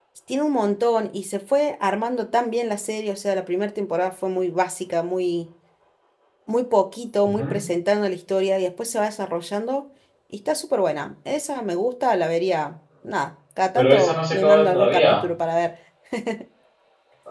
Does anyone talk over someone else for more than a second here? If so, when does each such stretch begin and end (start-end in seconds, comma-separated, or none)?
13.8-15.2